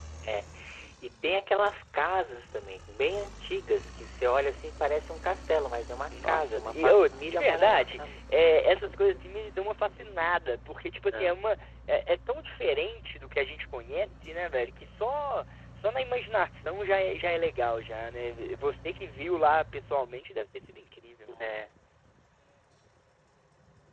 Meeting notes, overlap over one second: present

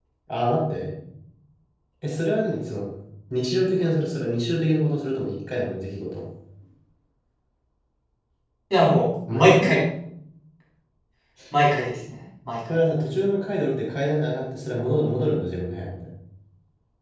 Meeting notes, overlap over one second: none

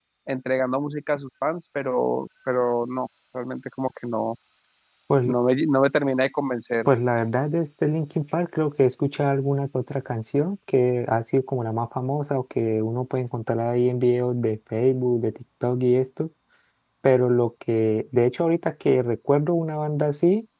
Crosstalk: none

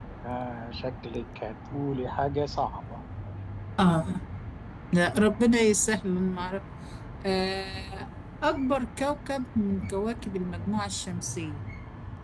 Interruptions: none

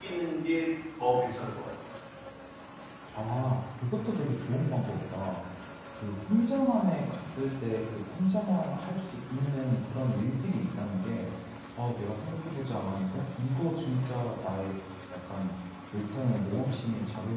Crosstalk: none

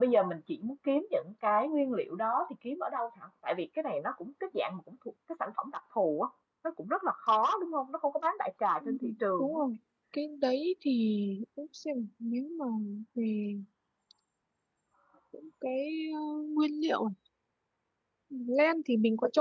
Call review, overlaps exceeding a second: none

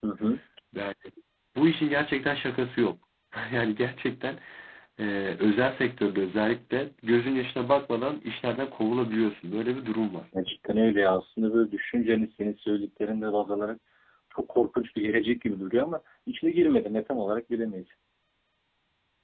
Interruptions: none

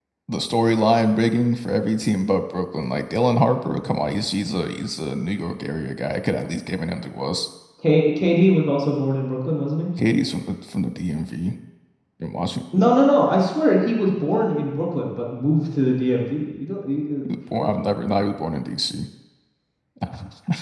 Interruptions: none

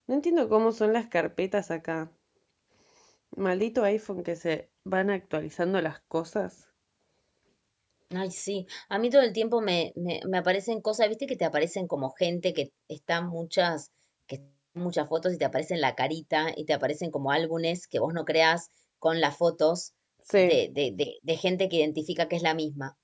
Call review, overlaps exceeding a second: none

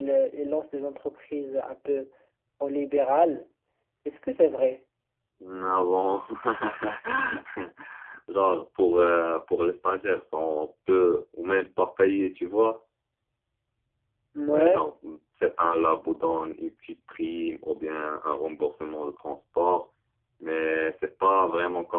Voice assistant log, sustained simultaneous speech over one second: none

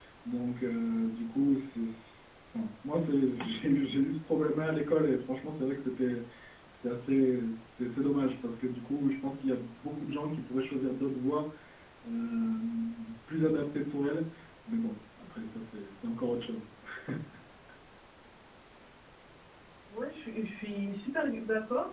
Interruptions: none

